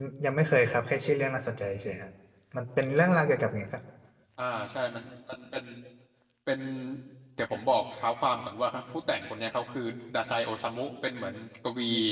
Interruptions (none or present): none